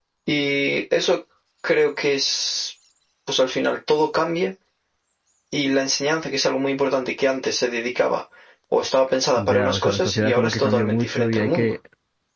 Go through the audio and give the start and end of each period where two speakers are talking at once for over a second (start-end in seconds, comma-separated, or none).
9.4-11.8